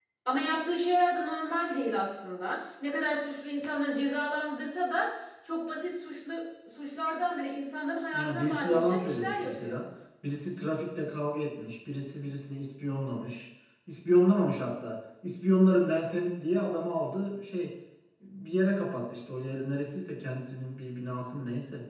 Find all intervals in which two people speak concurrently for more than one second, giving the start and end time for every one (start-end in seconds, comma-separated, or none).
8.1-9.8